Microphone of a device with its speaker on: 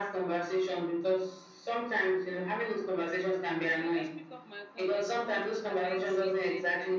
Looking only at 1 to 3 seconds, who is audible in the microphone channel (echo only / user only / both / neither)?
echo only